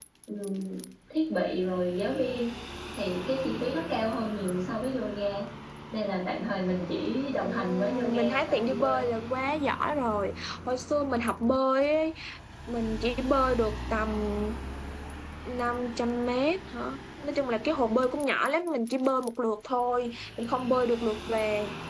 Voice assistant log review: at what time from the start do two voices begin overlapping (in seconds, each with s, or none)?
7.4 s